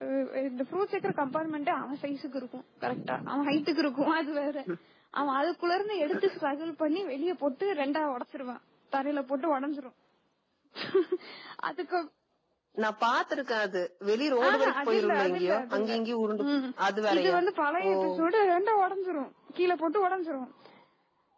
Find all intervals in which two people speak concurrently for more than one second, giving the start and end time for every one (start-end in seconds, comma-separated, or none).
14.5-15.9